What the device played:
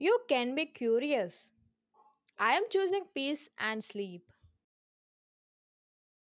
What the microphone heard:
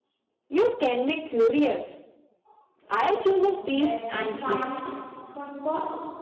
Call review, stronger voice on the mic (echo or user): echo